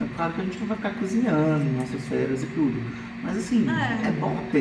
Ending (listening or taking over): listening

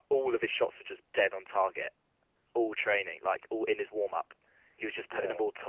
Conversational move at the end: listening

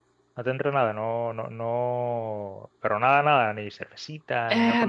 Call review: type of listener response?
taking over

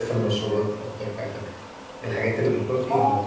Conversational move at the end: taking over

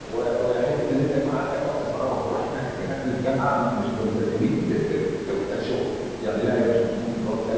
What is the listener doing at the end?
listening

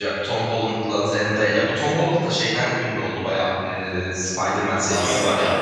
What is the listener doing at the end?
taking over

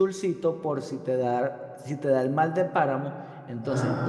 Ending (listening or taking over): taking over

